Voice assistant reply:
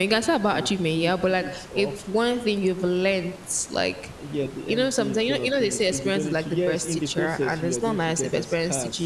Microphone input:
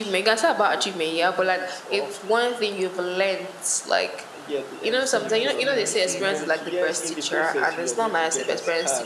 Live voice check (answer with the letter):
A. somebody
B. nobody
A